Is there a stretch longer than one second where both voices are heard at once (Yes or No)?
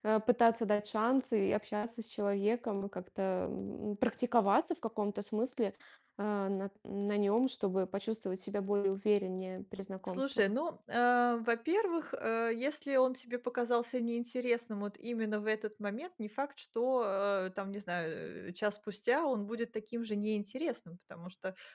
No